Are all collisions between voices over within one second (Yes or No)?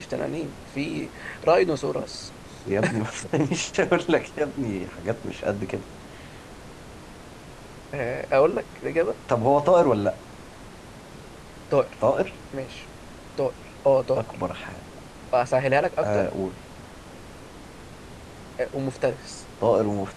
Yes